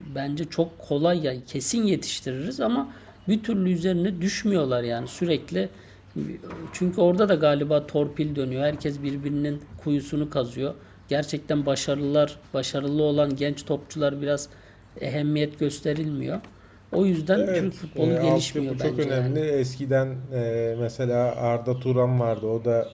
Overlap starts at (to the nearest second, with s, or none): 17 s